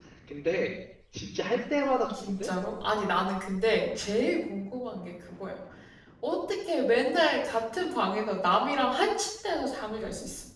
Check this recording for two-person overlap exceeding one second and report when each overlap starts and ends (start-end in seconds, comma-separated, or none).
none